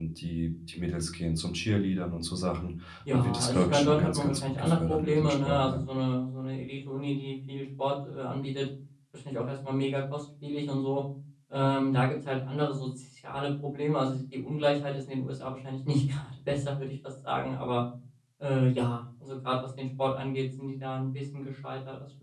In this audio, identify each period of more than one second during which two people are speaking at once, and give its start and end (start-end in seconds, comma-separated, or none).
3.1-5.8